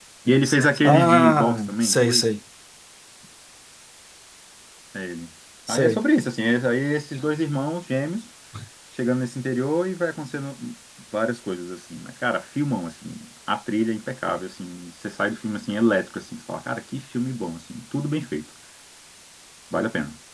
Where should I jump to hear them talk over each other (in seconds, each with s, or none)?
0.8 s